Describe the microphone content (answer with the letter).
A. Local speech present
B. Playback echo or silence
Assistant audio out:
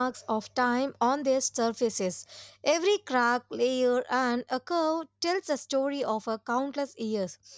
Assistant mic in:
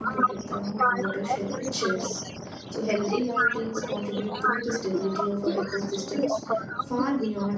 A